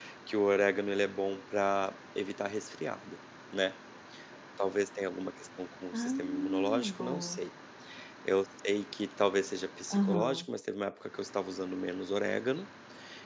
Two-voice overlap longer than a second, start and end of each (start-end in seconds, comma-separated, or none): 5.9-7.4